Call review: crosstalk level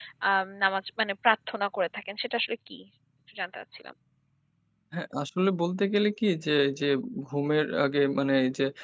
none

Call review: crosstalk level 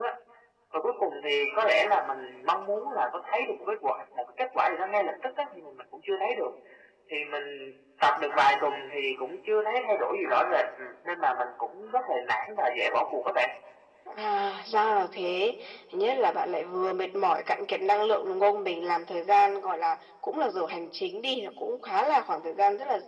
none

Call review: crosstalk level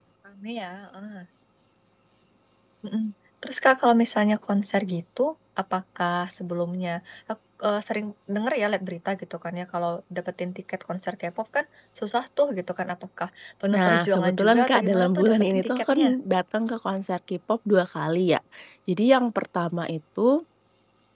present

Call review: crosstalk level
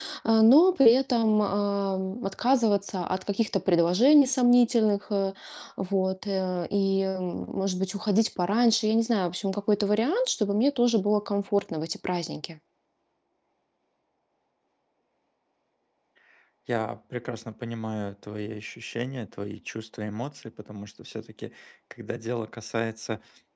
none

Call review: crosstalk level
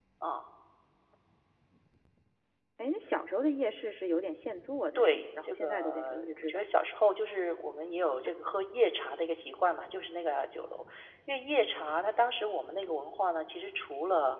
present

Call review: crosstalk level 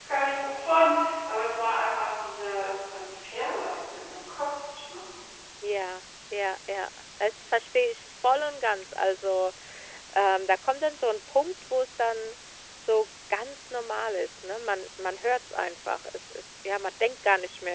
none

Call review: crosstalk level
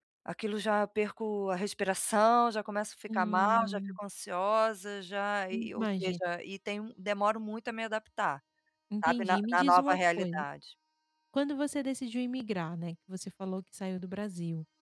present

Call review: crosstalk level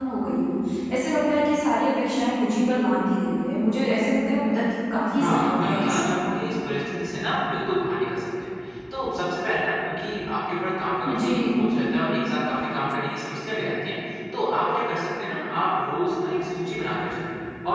present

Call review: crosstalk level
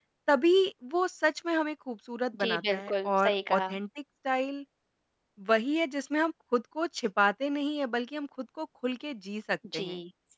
present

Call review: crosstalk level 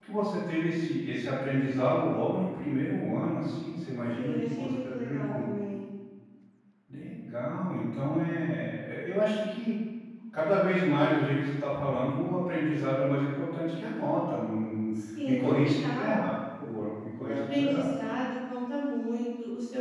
present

